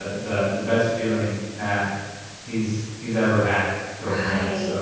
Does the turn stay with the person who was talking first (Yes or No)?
No